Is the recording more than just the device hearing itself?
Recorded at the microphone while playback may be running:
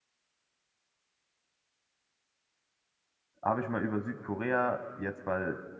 Yes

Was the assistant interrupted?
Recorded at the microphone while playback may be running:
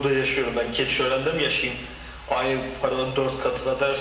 No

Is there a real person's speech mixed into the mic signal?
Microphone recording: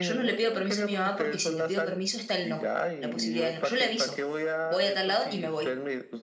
Yes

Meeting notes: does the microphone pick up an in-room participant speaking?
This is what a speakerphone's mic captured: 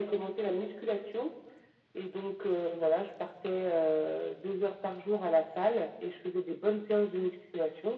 No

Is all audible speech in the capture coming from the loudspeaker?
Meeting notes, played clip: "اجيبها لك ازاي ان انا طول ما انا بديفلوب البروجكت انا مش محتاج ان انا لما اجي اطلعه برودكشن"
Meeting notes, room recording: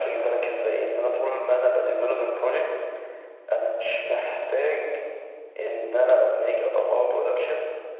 Yes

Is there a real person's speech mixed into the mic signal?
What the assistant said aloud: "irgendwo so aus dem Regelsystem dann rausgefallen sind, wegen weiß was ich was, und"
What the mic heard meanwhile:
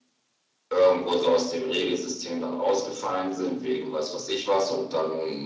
No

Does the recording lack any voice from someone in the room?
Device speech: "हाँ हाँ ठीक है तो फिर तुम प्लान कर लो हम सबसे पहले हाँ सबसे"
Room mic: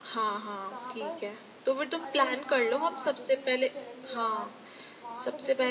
No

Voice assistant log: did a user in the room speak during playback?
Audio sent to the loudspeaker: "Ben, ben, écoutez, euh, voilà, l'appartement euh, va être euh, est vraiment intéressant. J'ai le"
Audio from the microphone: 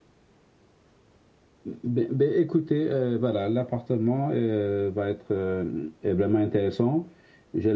No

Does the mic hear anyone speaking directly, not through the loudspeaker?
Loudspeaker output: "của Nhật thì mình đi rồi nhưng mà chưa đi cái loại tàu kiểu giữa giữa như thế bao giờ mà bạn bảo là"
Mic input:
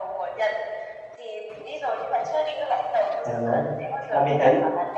Yes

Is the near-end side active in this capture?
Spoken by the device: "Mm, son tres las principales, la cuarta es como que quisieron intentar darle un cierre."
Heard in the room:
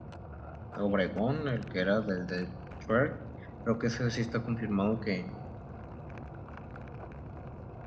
Yes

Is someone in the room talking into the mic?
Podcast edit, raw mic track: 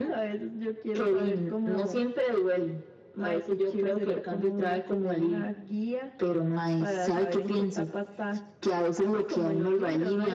No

